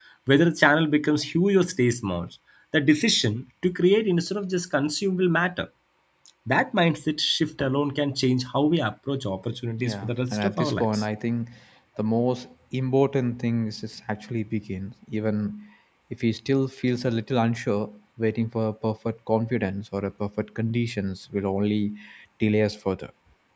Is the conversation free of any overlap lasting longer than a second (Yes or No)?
No